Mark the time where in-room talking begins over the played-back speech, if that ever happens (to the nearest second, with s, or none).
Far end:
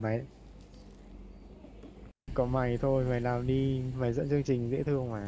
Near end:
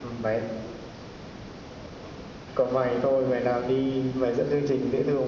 none